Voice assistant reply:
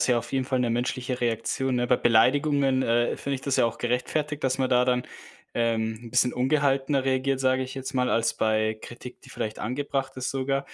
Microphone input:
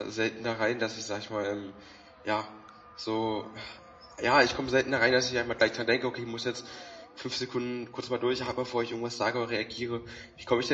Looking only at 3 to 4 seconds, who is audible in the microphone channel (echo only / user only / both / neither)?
user only